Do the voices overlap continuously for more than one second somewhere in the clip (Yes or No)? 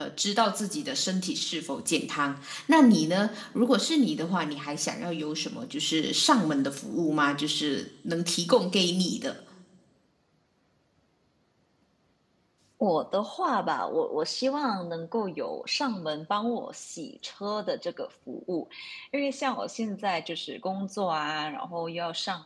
No